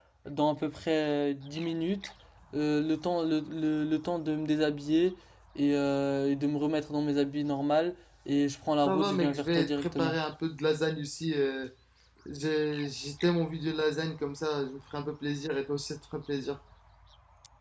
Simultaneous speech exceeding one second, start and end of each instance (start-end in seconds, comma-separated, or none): 8.8-10.2